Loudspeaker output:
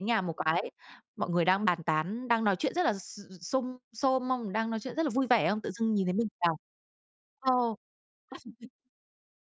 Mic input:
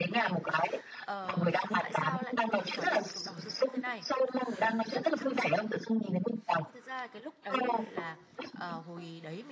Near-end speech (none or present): present